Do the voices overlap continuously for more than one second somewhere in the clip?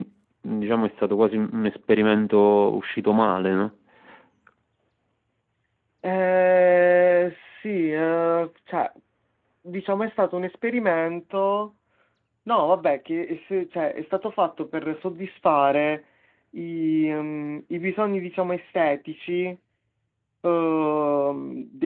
No

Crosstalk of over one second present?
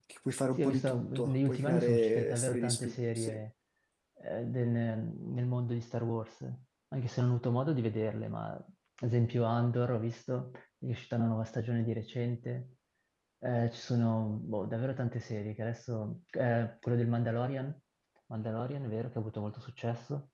Yes, from 0.6 s

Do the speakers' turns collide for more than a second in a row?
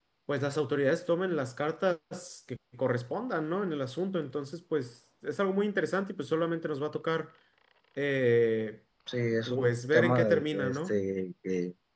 Yes, from 9.5 s

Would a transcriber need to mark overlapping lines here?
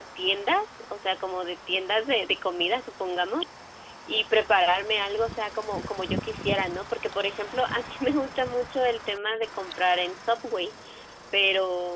No

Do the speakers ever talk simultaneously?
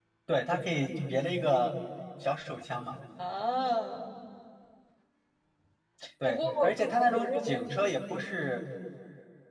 Yes, from 6.2 s

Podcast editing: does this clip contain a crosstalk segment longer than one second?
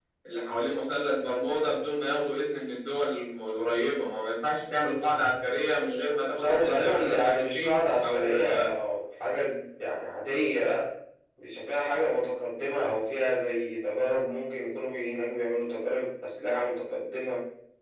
Yes, from 6.4 s

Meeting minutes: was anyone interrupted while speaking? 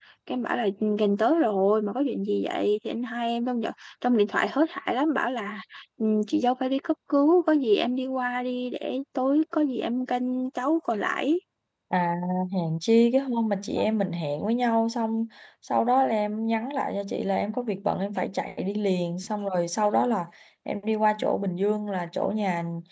No

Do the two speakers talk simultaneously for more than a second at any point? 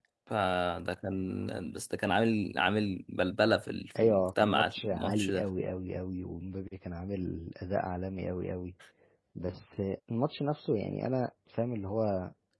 Yes, from 4.0 s

